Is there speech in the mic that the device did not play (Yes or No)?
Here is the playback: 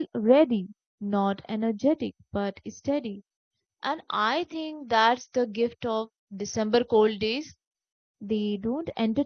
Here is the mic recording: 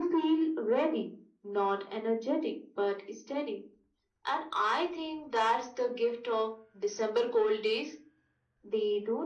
No